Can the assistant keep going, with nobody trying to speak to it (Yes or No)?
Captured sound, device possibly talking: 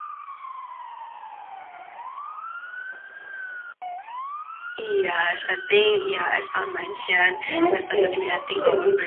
No